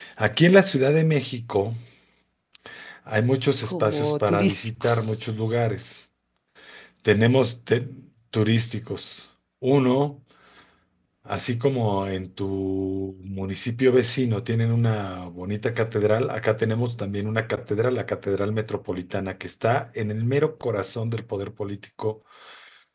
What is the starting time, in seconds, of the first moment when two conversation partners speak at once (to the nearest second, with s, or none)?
4 s